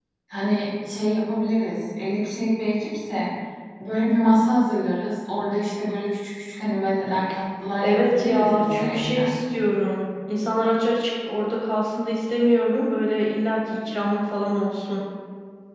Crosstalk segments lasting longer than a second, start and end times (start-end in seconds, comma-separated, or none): 7.8-9.3